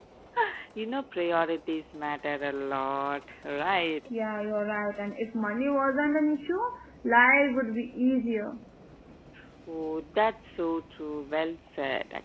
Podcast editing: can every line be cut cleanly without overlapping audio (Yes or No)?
Yes